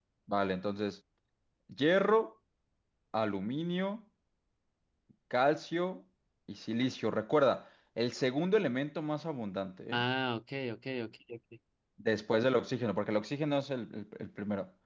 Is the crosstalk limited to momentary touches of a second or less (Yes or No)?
Yes